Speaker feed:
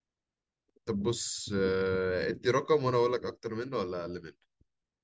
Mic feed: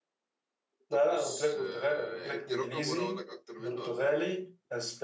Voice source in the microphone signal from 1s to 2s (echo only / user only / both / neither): both